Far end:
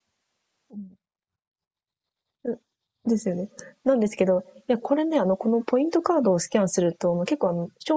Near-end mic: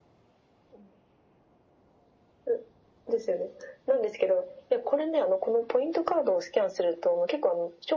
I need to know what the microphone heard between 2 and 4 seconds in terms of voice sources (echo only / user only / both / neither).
echo only